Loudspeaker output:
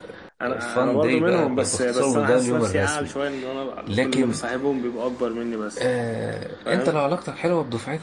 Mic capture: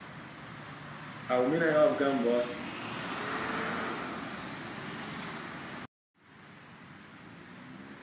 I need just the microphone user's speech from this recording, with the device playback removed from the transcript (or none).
أو مين هيقف جنبه أصلا